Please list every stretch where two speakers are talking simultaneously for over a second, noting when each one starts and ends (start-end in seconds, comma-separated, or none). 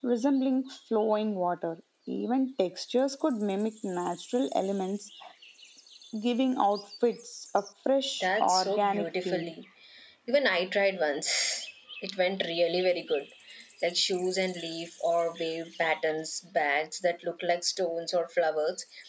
8.2-9.5